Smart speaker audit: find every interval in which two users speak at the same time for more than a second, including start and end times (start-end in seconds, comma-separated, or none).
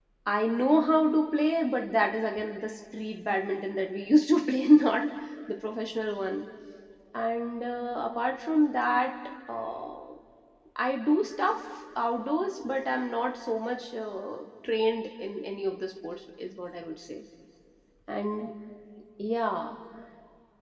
none